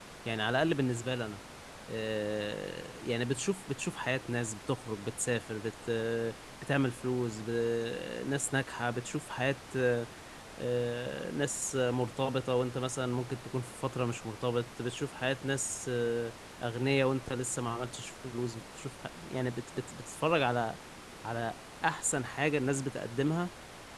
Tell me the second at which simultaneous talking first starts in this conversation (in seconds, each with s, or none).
none